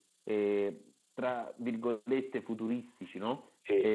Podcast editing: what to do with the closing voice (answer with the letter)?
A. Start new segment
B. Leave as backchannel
B